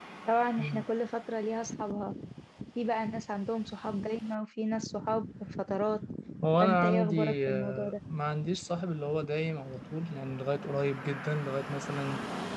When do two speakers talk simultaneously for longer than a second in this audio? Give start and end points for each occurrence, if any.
6.6-7.9

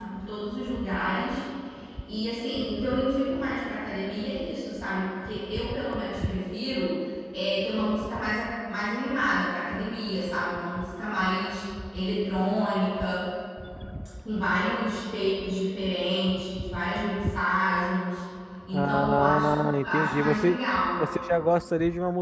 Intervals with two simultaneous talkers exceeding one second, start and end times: 18.7-20.6

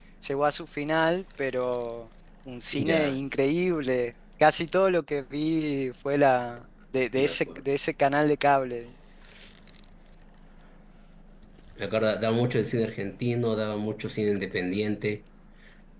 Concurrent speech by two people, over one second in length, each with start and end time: none

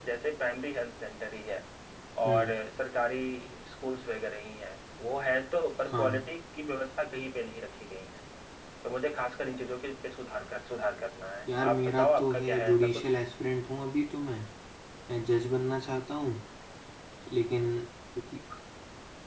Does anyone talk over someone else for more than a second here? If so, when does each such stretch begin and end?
11.6-13.1

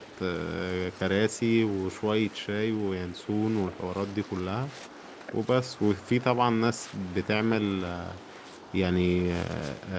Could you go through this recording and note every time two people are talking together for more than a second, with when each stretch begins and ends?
none

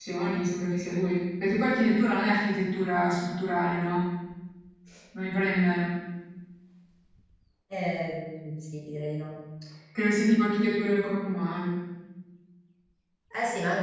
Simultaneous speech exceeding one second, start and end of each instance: none

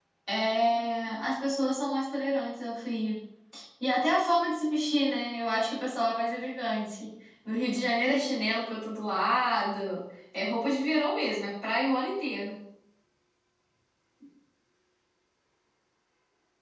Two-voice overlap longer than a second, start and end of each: none

